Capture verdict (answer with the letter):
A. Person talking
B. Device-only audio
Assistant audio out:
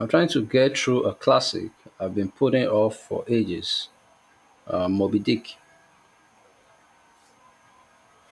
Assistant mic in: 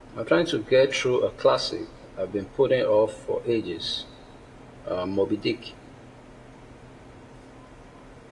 B